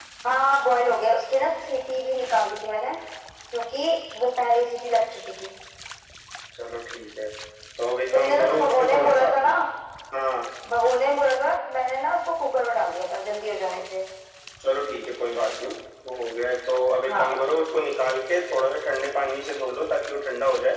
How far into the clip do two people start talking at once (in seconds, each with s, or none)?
8.1 s